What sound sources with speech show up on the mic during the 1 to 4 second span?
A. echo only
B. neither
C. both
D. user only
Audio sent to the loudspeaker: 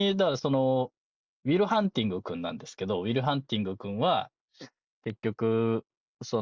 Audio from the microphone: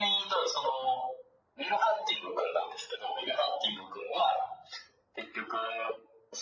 A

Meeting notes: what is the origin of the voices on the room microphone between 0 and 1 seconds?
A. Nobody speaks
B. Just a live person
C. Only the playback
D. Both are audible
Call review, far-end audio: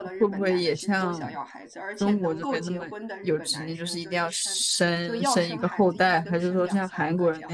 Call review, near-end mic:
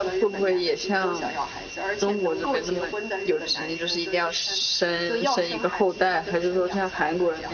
C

